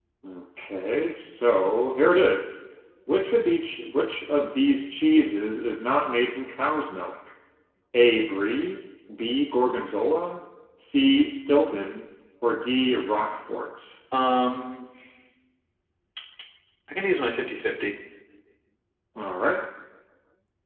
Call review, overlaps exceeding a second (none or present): none